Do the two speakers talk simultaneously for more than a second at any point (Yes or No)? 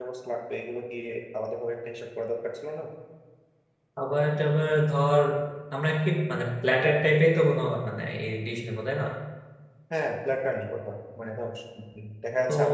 No